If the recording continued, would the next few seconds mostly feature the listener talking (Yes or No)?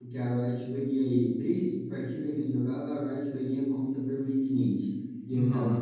No